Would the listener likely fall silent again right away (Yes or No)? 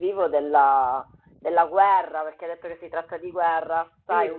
Yes